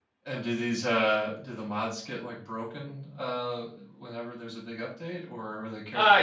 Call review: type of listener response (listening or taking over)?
taking over